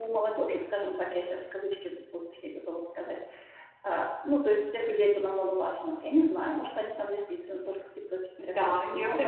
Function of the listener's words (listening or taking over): taking over